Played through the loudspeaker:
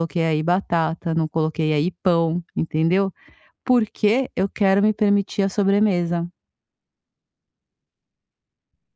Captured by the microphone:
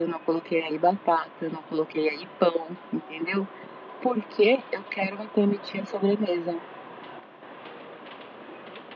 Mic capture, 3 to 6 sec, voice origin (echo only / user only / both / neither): echo only